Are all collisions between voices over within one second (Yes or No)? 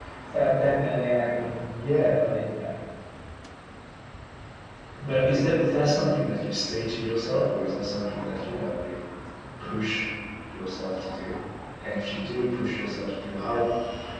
Yes